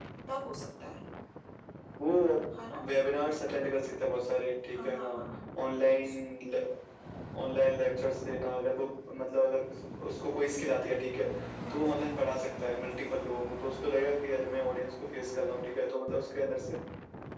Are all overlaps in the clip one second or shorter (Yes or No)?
Yes